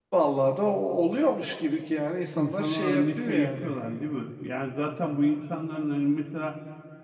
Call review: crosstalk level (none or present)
present